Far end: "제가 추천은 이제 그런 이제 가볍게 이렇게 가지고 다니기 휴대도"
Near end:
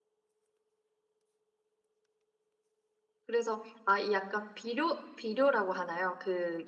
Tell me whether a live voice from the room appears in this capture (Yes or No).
Yes